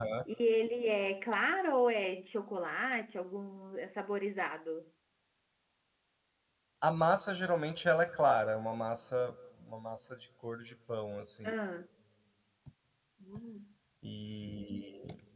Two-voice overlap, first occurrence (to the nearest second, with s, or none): none